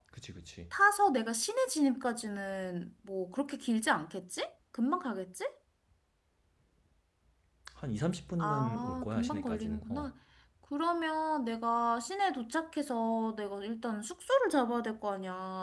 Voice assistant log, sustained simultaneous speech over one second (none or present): present